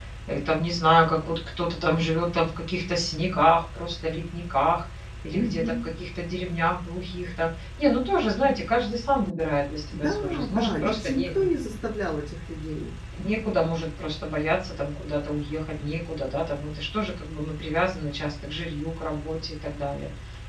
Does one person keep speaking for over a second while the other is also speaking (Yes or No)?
Yes